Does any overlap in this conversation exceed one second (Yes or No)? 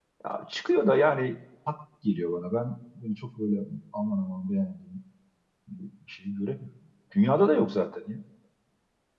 No